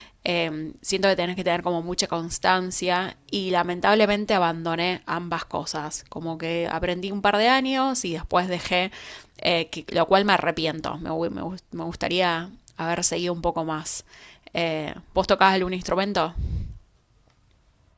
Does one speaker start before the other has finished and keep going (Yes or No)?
No